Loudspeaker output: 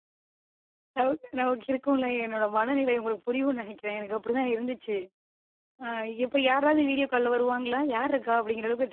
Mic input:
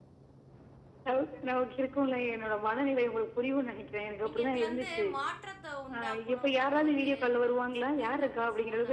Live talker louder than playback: No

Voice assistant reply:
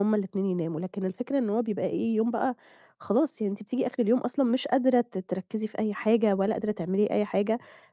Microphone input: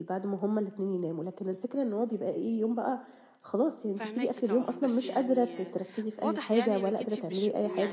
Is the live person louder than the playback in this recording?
No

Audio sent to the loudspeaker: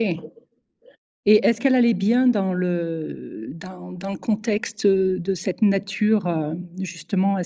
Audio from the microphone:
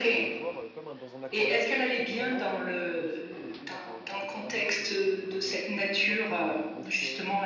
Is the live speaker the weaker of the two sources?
Yes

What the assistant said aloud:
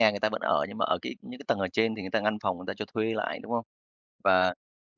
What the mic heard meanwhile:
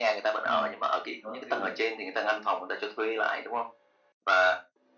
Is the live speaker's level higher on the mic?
No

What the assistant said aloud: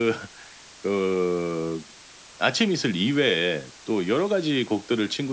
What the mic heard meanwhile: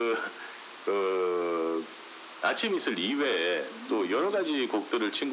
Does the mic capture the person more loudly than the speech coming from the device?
No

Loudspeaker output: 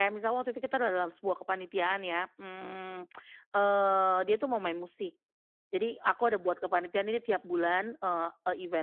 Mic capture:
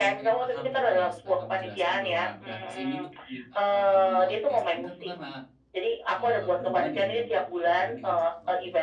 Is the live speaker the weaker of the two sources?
Yes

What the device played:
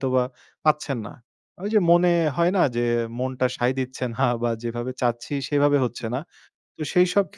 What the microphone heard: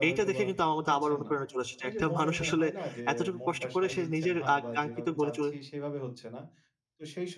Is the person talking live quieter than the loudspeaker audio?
No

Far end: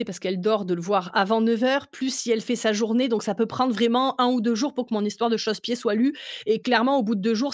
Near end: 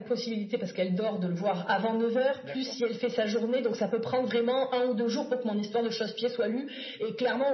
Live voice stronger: No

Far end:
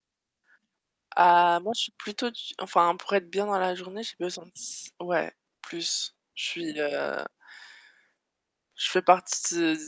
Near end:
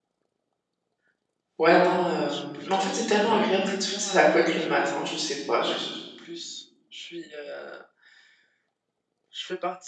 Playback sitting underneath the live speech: Yes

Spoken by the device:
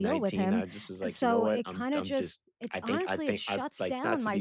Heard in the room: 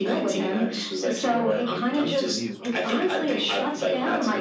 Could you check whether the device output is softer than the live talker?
No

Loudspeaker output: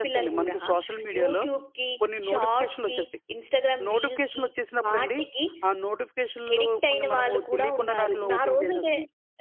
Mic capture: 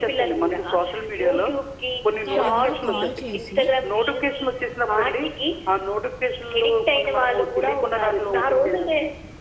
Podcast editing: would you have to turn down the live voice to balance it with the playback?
No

